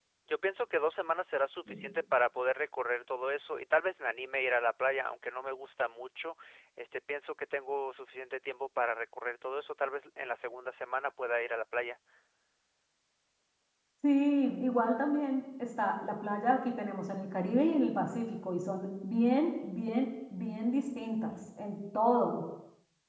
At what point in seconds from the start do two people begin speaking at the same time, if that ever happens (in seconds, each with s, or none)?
none